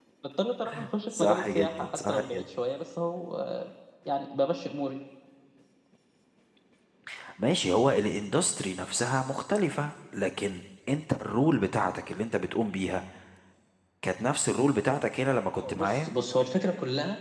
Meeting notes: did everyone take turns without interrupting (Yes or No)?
No